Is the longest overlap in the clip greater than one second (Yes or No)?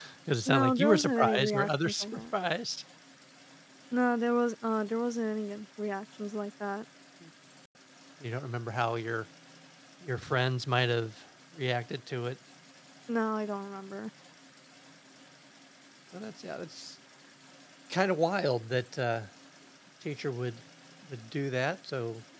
Yes